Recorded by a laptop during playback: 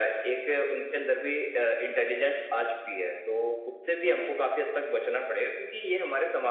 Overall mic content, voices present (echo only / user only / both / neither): echo only